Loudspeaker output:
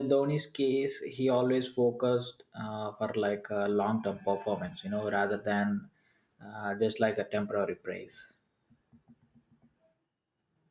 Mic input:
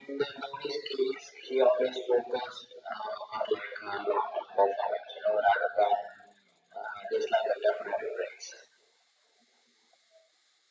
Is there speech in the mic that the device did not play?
No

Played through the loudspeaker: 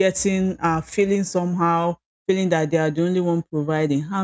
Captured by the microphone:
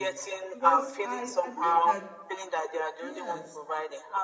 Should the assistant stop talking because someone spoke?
Yes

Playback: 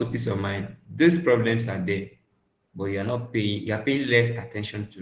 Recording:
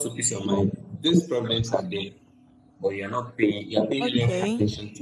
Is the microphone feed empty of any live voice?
No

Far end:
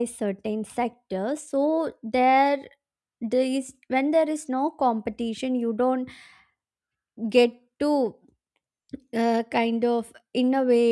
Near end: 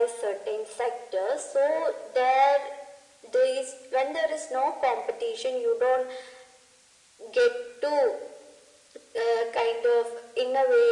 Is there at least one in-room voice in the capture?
No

